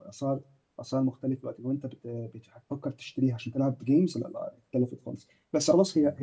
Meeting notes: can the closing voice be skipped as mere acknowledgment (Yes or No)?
Yes